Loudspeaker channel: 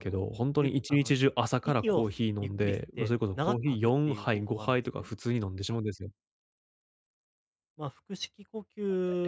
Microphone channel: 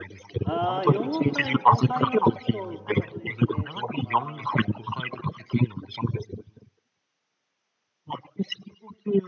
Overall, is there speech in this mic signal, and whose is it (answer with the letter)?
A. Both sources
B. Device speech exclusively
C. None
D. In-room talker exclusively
A